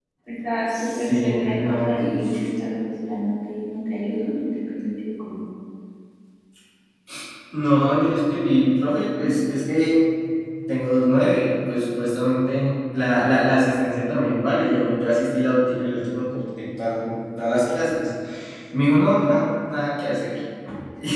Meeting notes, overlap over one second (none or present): present